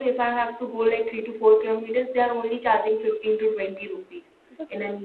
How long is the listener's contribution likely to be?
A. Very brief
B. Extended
A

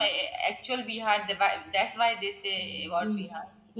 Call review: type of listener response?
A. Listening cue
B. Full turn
B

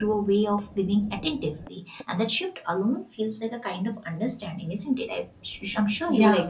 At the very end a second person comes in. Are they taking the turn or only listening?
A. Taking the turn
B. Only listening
A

